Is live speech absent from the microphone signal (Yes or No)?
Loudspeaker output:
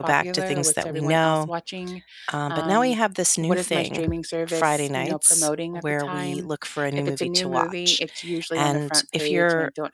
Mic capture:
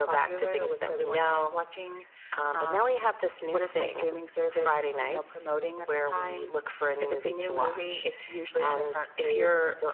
Yes